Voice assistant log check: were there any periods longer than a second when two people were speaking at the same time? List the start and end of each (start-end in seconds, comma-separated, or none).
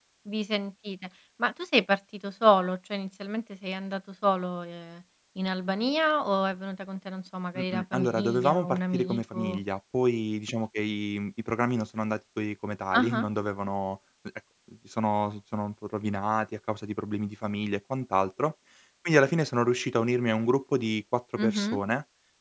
7.6-9.6